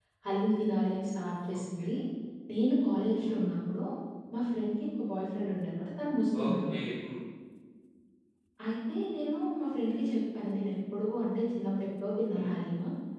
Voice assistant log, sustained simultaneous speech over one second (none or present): none